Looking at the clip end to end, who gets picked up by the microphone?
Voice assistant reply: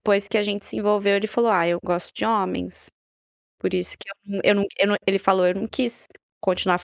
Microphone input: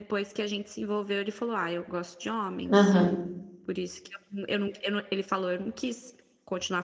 both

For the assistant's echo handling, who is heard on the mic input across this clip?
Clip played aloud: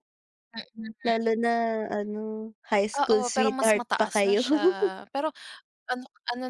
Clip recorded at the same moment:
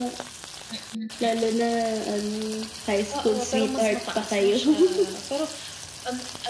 echo only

